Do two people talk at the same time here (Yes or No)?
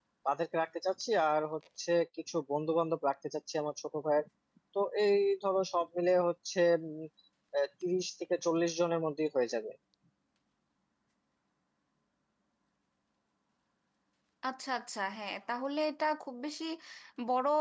No